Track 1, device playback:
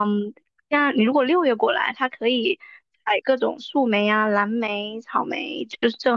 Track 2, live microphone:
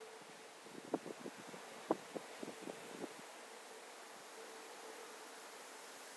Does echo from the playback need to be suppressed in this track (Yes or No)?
No